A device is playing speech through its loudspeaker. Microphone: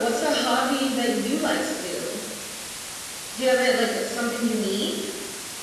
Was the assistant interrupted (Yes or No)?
No